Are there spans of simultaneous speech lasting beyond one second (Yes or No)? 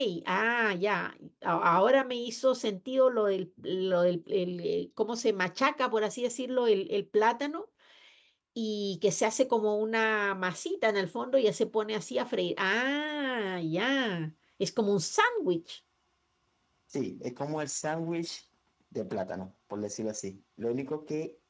No